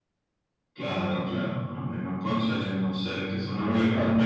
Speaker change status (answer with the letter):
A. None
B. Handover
B